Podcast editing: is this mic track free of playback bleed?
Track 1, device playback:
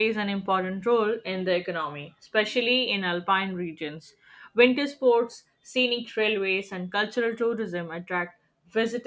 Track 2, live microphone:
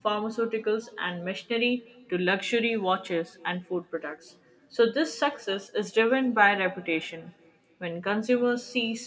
Yes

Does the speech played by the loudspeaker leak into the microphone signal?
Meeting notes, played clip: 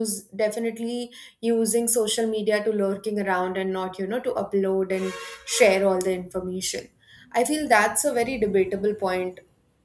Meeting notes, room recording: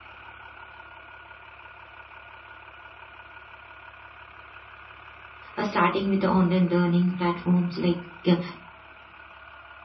No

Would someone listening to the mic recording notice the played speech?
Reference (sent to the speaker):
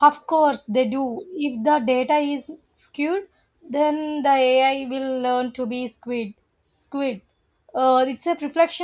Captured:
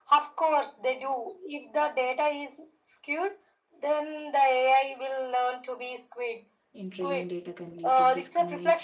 Yes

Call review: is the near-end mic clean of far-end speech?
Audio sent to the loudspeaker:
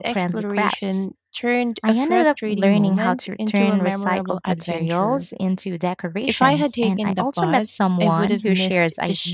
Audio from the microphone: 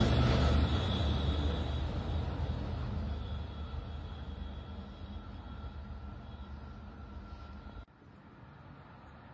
Yes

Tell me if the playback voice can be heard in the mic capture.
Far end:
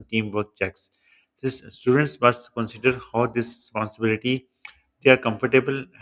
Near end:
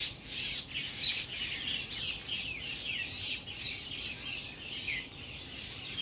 No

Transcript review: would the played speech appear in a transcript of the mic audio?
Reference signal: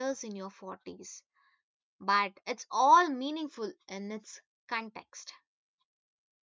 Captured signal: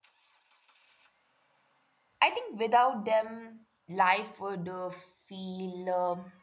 No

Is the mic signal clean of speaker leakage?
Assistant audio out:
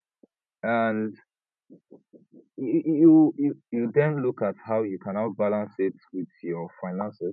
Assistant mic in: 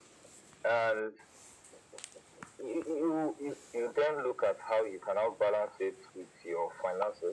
No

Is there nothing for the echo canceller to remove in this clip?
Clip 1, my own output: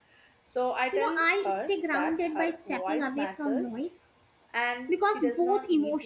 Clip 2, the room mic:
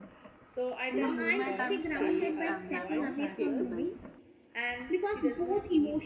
No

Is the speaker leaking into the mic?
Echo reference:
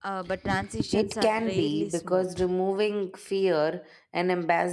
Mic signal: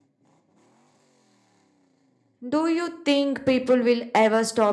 No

